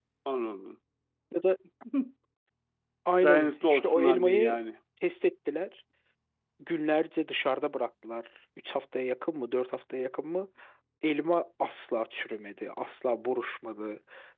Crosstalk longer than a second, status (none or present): present